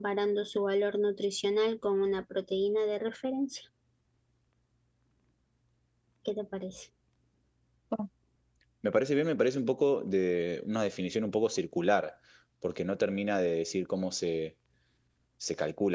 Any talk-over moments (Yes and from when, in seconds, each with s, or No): No